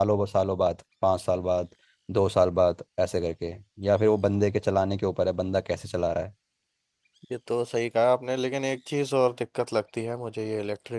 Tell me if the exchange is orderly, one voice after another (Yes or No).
Yes